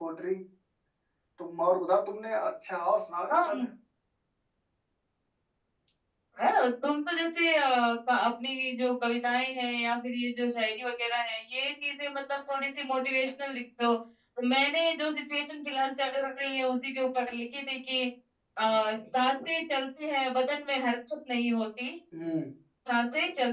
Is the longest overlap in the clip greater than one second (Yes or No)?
No